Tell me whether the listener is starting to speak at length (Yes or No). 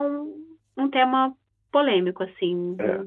Yes